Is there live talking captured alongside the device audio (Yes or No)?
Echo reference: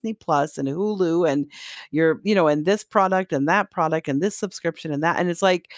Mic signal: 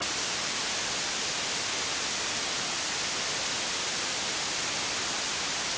No